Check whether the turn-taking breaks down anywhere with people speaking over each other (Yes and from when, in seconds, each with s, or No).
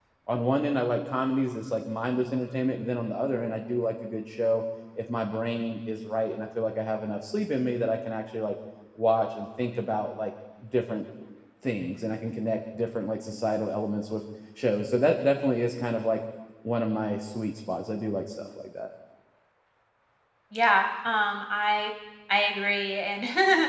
No